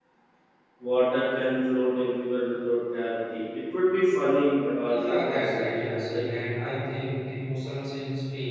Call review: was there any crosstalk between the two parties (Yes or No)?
Yes